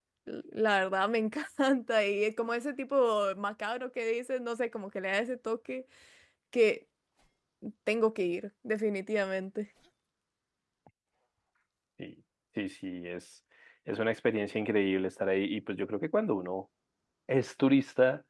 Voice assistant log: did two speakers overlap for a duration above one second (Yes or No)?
No